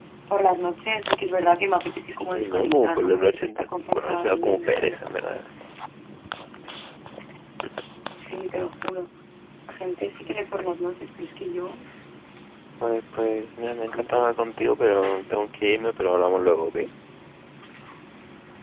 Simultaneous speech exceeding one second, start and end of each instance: 2.1-5.0

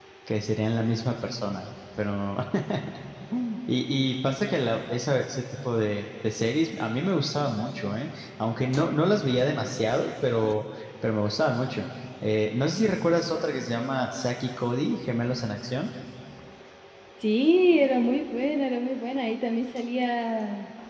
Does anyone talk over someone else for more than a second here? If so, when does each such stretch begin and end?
none

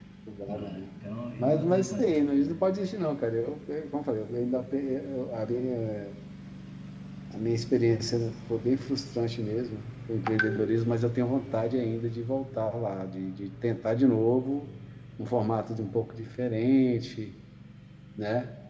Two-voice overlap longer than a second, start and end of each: 1.4-2.6

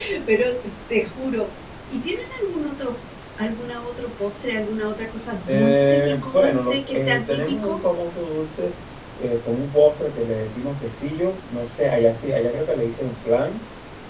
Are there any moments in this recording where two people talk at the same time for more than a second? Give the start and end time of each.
5.5-7.8

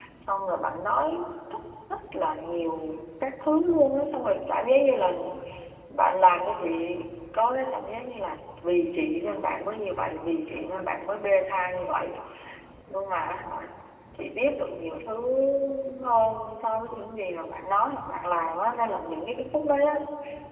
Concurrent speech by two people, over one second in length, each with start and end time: none

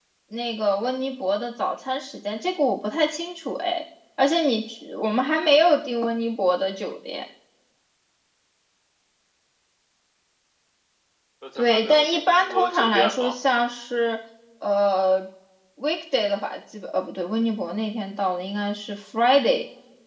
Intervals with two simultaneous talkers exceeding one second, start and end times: 11.6-13.3

